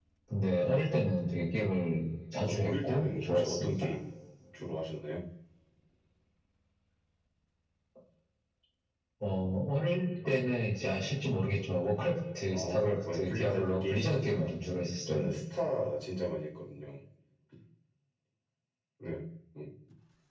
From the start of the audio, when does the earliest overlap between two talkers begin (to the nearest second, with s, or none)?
2 s